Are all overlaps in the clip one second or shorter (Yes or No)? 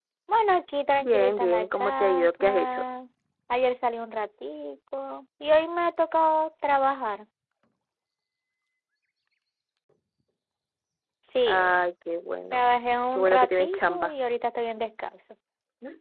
No